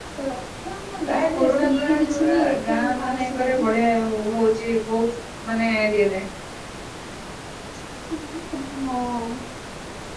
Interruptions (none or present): present